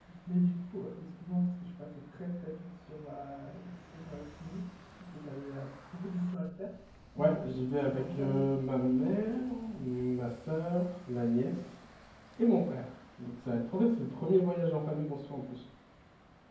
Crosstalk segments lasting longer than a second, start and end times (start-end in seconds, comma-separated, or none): 7.2-8.5